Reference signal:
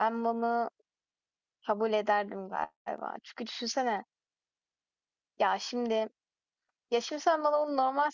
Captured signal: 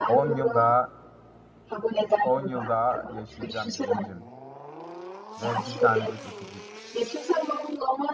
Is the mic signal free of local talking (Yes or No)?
No